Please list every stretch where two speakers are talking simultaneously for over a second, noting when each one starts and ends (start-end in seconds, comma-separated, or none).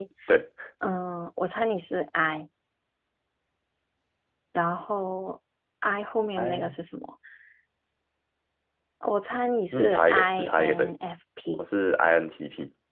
9.7-10.9